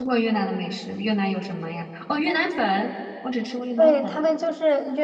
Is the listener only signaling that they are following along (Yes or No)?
No